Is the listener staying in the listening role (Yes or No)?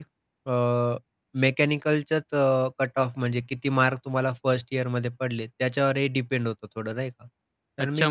No